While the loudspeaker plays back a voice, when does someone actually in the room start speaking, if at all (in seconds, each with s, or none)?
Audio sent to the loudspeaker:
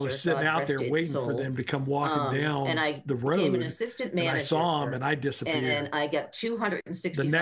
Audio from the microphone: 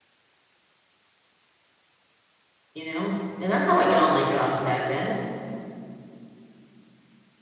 2.7 s